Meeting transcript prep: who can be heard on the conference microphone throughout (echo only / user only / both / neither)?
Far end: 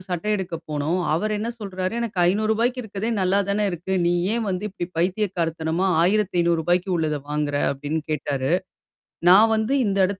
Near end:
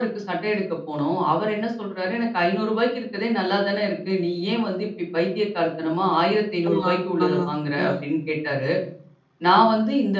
both